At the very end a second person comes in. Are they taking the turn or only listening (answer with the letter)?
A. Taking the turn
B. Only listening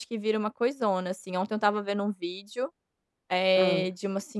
B